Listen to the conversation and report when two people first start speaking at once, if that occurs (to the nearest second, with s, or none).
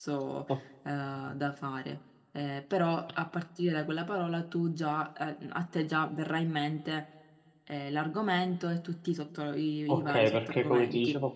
10 s